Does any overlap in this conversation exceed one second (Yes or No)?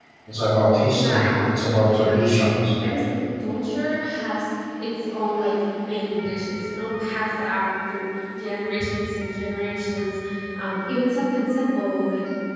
Yes